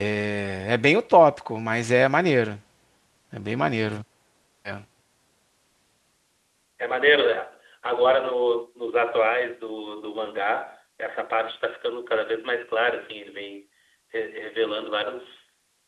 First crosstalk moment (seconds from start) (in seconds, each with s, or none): none